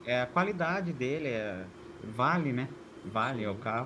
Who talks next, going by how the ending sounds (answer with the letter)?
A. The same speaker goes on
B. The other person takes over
A